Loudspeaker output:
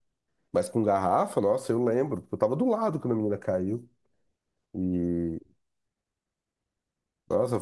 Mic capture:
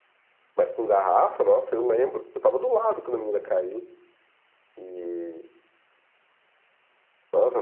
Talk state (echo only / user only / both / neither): echo only